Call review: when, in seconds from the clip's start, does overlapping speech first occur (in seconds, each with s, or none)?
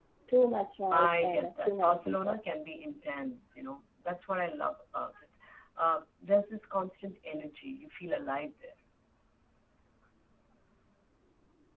0.9 s